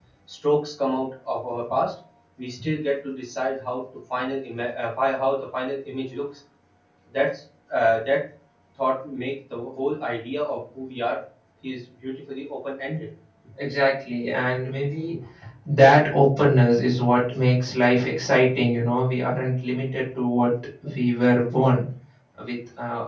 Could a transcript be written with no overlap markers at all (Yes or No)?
Yes